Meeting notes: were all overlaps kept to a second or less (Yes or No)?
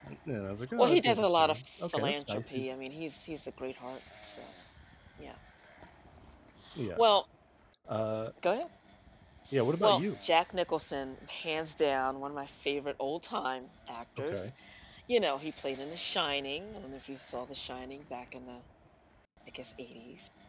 No